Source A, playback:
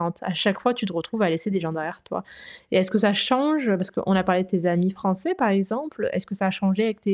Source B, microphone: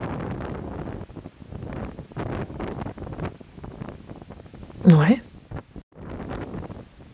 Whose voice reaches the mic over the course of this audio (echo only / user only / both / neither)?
user only